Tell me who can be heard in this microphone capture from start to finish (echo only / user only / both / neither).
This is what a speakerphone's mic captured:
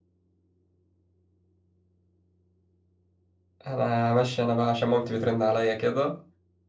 user only